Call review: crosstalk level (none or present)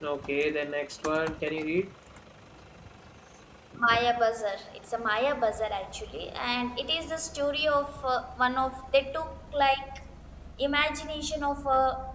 none